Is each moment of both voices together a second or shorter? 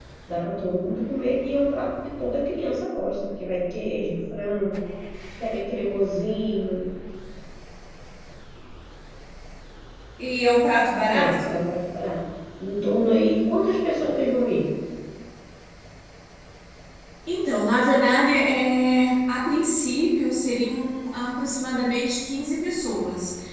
Yes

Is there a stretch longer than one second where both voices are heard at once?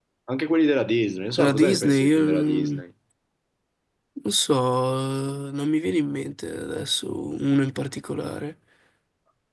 Yes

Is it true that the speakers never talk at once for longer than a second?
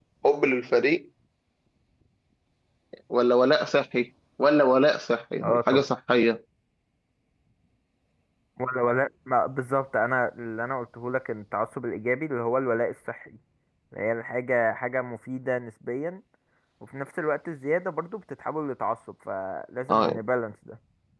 Yes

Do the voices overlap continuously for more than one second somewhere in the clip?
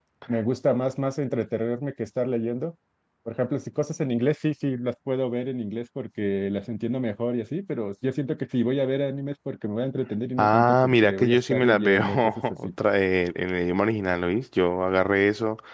Yes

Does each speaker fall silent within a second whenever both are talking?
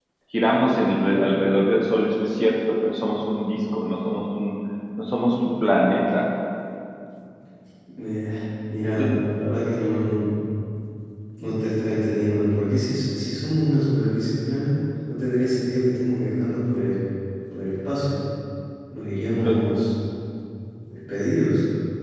Yes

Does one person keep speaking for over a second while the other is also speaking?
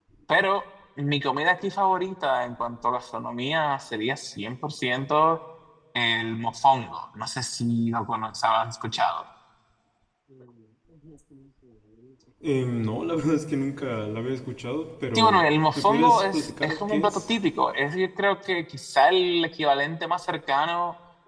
Yes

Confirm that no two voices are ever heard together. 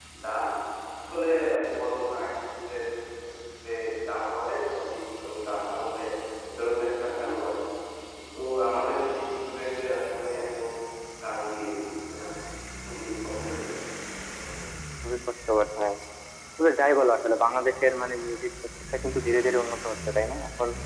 Yes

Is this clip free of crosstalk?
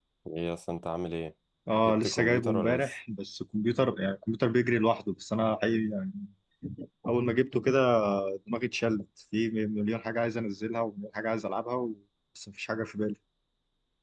No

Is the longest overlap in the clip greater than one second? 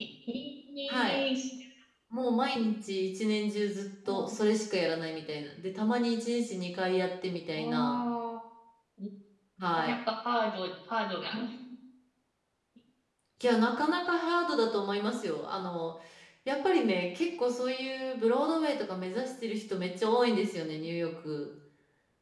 No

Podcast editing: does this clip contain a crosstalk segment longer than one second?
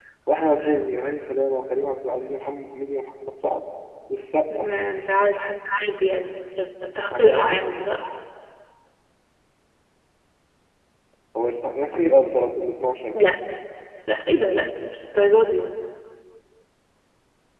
No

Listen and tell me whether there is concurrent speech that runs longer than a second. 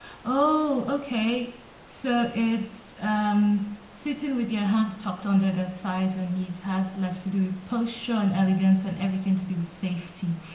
No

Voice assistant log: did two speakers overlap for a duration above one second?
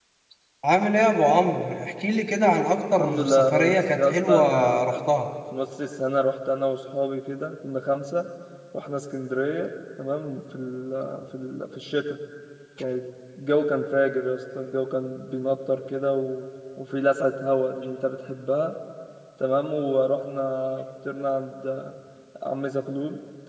Yes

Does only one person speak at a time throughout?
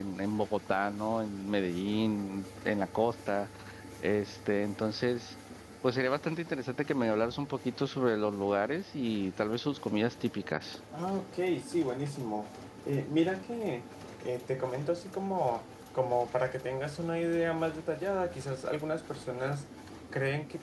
Yes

